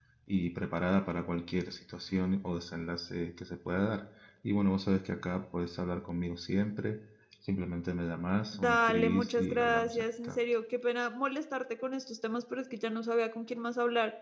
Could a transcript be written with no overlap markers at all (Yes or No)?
No